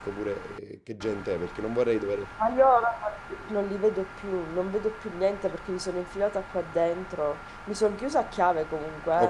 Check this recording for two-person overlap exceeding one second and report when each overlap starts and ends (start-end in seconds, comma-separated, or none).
none